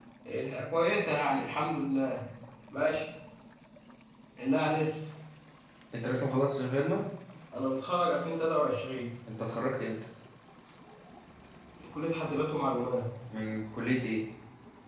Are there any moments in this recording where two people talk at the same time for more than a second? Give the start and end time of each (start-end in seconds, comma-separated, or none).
none